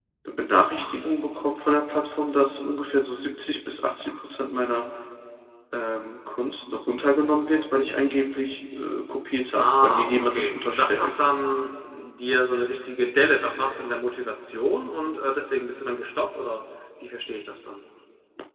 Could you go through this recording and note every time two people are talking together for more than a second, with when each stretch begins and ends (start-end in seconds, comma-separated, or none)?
9.6-11.1